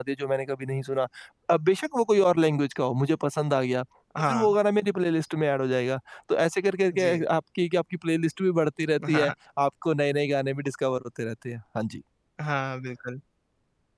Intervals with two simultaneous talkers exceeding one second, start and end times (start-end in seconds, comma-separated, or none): none